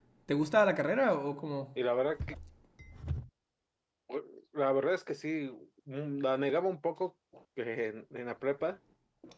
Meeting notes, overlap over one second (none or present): none